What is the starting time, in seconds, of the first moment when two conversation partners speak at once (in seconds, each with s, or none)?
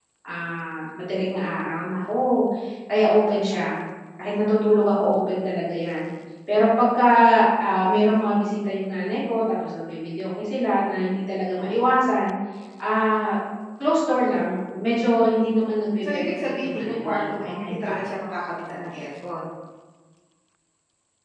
16.1 s